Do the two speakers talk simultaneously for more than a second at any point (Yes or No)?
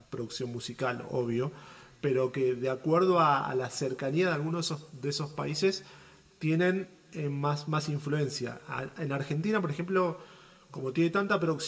No